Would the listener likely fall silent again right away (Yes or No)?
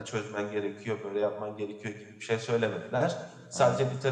Yes